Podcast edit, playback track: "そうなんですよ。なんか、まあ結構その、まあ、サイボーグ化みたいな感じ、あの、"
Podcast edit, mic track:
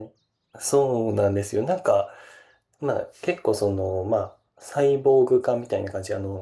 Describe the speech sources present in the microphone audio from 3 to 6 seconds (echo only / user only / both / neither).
echo only